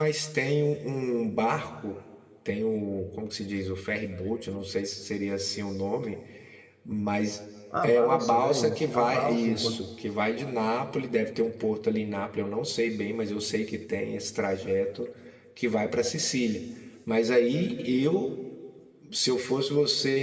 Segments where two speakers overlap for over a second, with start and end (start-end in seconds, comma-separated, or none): 7.8-9.8